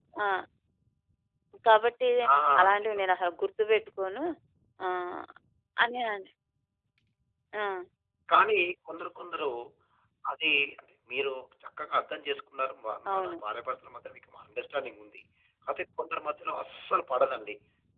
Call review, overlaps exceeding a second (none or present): none